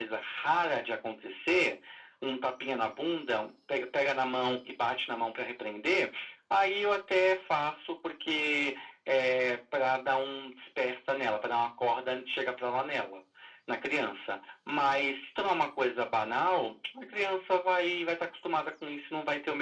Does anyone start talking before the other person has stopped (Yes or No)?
No